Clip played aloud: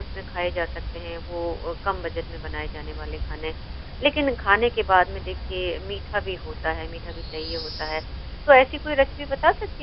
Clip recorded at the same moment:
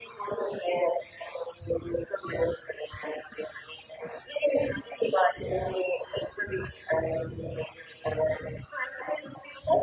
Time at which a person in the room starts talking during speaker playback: none

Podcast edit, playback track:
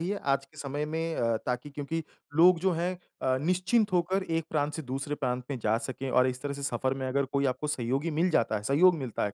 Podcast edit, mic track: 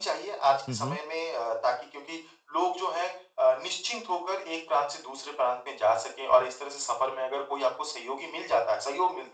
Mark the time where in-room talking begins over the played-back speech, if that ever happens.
1 s

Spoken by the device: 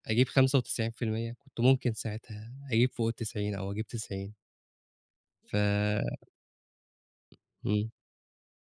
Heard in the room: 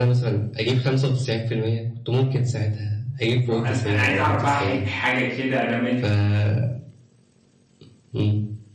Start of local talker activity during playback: 4 s

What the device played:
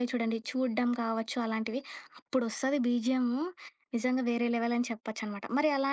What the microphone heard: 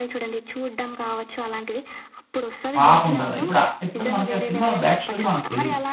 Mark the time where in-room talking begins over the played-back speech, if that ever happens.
3 s

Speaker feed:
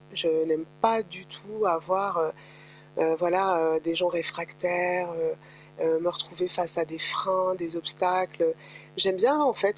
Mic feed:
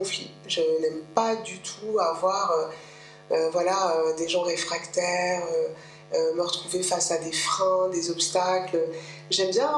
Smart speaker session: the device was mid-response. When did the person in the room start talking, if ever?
none

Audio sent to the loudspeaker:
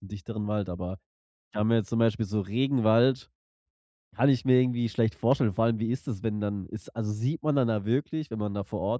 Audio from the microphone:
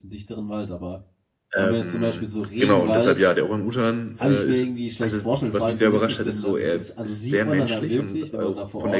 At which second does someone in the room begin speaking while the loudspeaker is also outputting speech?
2 s

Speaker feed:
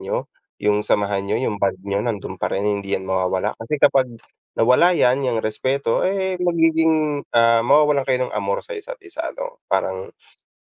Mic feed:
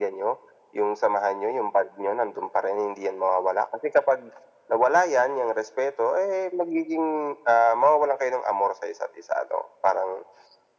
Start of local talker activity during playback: none

